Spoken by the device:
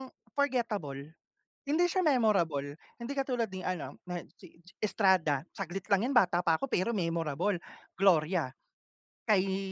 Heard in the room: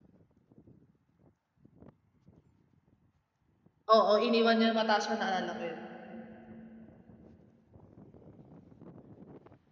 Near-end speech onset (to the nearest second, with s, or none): 4 s